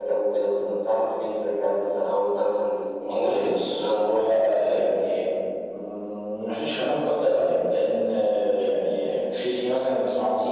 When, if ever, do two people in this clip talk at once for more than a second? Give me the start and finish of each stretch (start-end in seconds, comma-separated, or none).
3.0-4.8